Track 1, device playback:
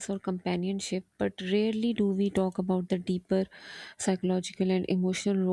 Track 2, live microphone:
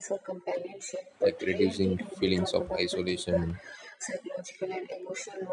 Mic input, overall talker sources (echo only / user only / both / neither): both